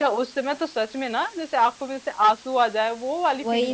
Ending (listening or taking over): taking over